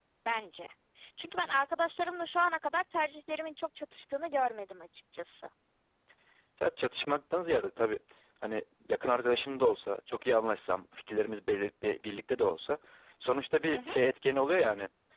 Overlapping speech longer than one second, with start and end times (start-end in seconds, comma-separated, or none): none